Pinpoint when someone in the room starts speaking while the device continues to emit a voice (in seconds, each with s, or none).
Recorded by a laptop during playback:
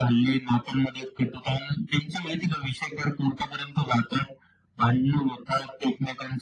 none